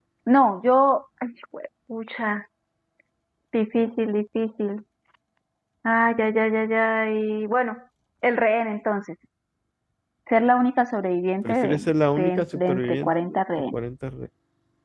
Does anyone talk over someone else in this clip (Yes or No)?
Yes